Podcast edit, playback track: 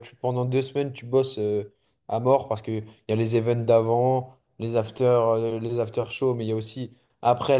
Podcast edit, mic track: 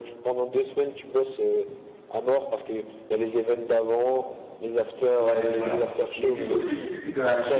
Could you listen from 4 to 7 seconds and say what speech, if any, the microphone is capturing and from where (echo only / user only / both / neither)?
both